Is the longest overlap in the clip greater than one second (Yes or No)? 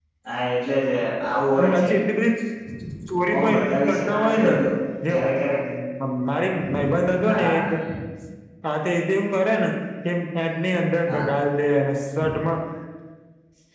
Yes